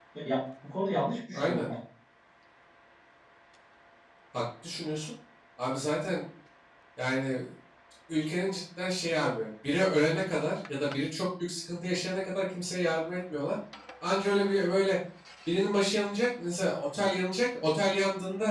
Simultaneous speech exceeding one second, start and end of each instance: none

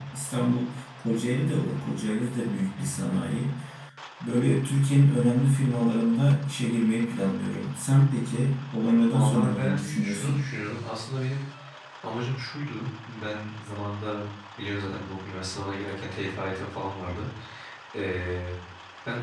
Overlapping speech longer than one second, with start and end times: 9.1-10.5

